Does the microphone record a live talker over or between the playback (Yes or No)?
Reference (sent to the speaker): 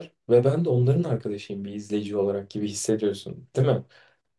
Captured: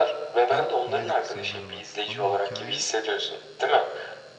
Yes